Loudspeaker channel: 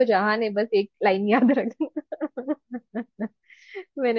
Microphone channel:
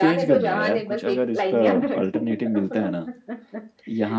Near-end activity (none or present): present